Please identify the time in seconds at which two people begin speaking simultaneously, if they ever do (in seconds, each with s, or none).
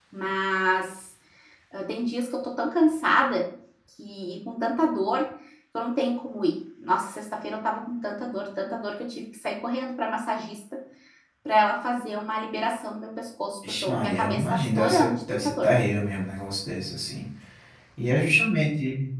13.6 s